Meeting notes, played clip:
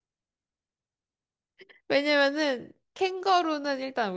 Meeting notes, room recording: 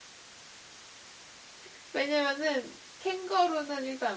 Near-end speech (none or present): none